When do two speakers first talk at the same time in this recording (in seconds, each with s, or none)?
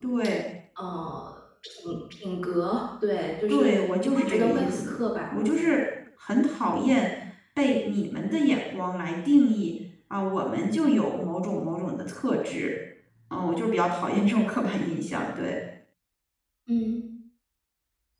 3.5 s